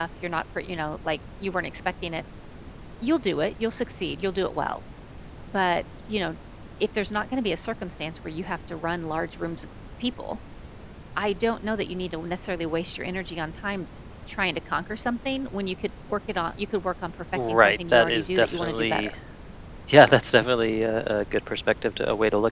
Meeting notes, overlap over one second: present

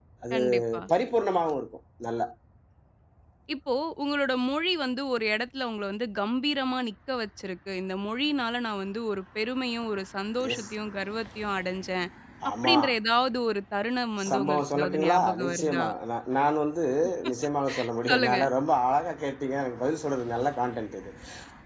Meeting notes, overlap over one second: present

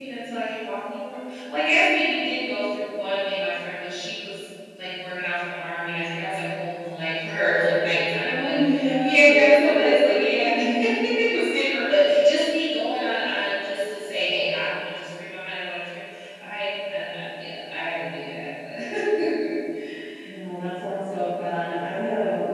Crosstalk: present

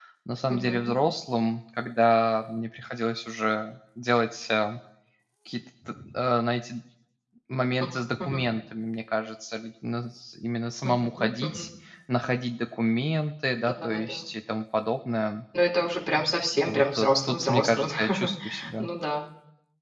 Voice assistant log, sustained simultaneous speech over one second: present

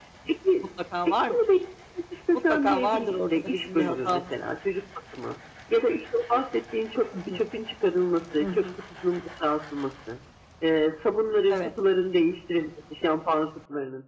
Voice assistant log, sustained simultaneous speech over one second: present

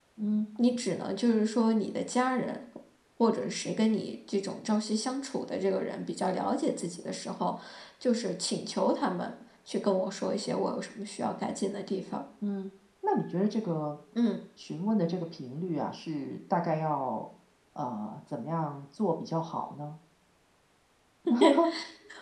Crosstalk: none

